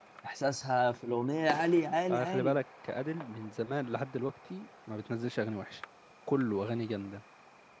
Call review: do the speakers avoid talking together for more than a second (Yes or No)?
Yes